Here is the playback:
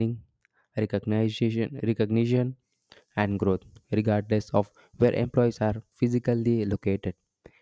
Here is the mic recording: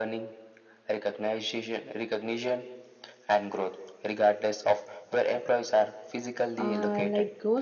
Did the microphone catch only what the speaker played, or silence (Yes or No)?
No